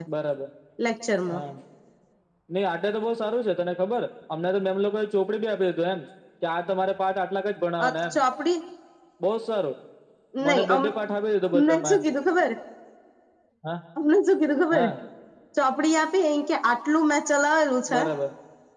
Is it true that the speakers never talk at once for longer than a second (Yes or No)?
Yes